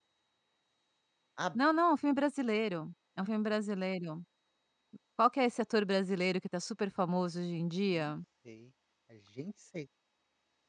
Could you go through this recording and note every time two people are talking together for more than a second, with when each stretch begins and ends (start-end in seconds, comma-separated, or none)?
none